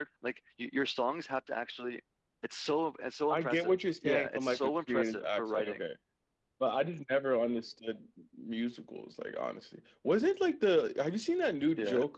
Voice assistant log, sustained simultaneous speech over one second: present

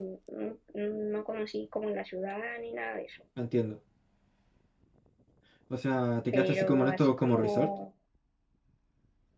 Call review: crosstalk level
present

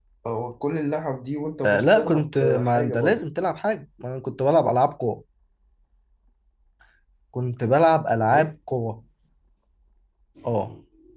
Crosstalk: present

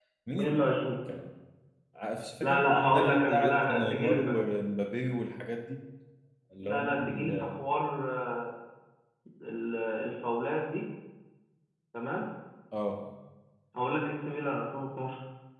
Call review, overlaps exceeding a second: present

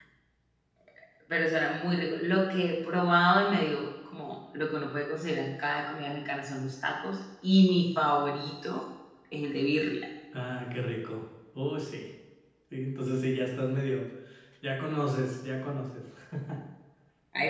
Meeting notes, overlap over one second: none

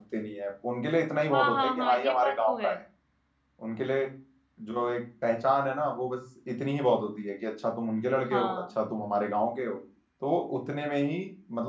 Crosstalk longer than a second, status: present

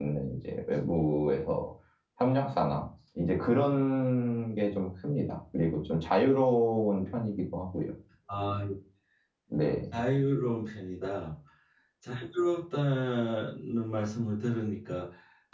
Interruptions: none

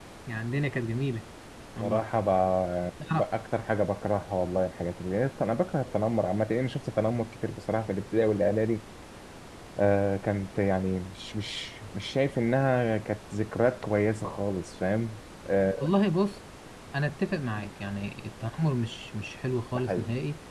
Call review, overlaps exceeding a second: none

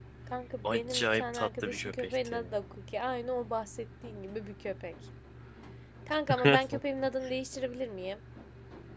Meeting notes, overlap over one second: present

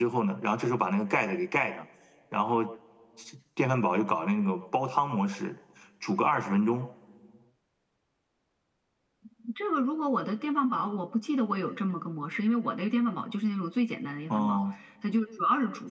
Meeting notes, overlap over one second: none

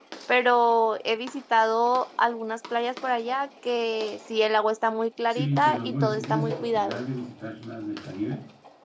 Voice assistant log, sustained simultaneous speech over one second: present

